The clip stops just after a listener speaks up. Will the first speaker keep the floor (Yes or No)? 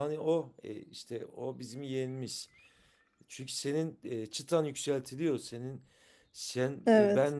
Yes